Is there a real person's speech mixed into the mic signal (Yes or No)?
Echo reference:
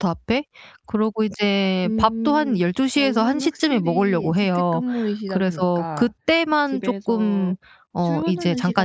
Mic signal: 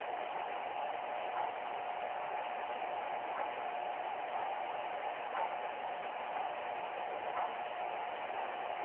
No